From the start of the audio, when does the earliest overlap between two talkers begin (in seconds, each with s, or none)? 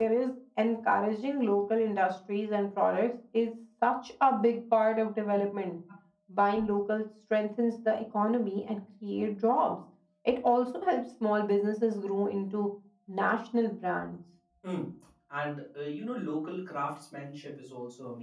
none